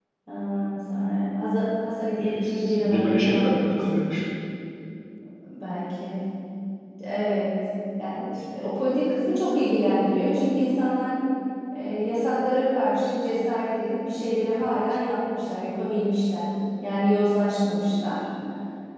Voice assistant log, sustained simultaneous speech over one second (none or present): present